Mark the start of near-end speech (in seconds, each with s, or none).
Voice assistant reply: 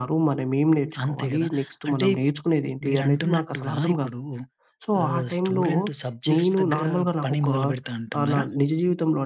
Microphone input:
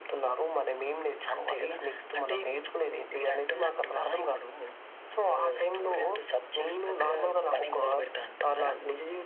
none